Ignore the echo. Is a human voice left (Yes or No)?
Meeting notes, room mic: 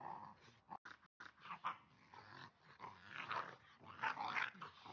No